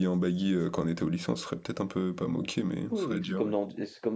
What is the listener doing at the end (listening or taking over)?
taking over